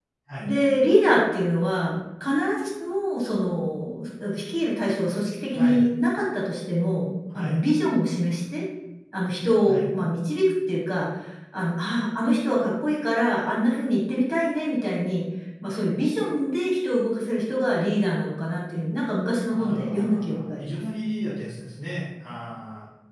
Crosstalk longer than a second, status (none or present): present